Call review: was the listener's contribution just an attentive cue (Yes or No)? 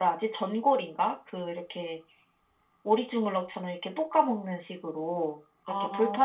Yes